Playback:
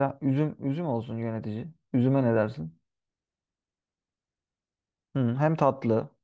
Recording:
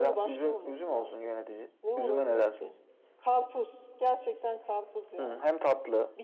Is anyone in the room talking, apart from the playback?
Yes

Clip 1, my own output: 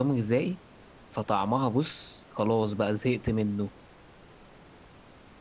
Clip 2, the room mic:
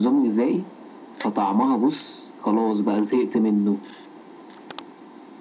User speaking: No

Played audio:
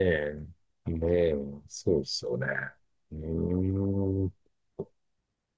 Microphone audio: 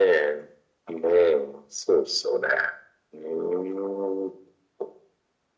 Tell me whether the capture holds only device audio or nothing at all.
Yes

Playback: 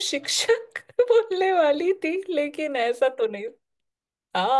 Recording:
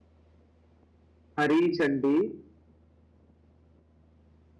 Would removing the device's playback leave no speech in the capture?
No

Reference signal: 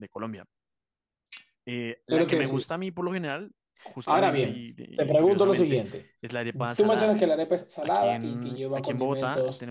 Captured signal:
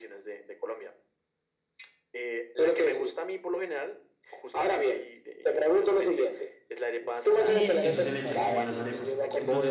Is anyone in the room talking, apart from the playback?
Yes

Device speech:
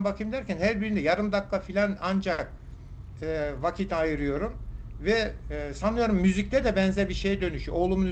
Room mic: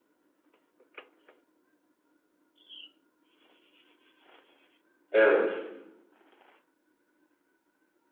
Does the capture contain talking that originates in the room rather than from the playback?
Yes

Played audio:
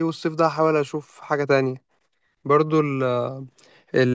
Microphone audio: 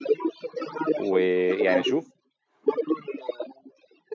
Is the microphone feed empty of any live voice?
No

